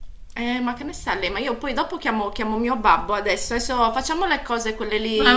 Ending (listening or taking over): taking over